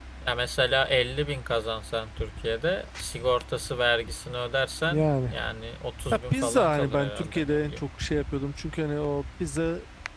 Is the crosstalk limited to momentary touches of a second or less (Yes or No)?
No